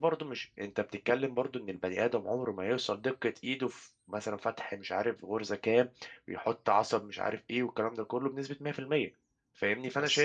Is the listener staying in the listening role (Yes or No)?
Yes